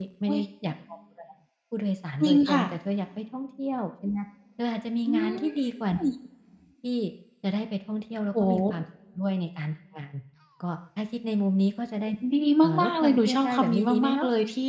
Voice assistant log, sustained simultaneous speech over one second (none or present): present